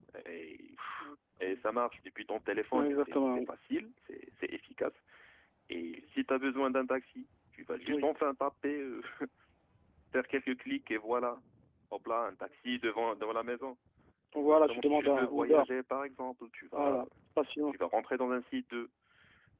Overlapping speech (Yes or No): Yes